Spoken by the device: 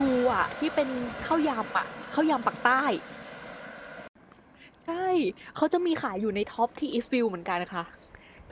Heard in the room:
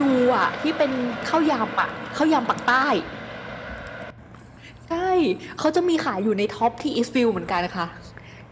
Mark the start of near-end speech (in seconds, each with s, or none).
none